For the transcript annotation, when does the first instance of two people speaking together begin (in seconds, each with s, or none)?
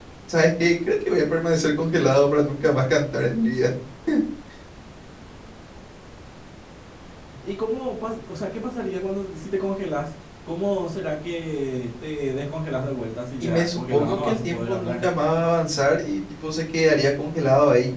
13.4 s